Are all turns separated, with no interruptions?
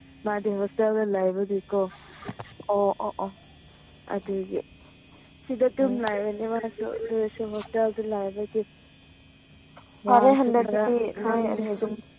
No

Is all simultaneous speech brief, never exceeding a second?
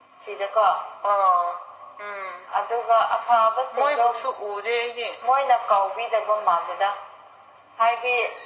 Yes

